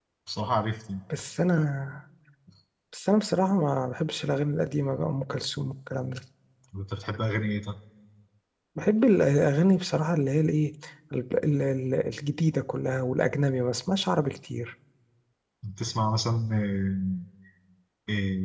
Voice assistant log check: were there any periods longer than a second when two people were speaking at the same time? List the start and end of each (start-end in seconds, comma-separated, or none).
none